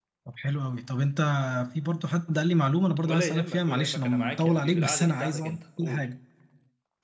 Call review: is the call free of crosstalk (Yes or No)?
No